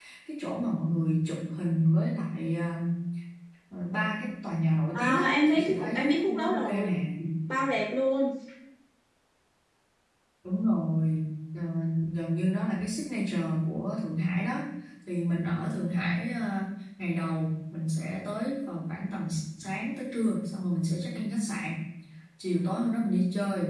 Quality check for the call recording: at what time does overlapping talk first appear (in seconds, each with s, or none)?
4.9 s